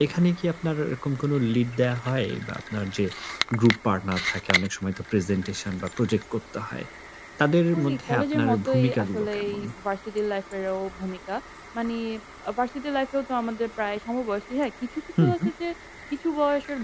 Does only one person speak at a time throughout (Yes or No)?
No